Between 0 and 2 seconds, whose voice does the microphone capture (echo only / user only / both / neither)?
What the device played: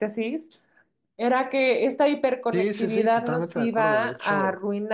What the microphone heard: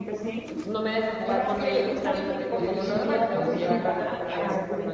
both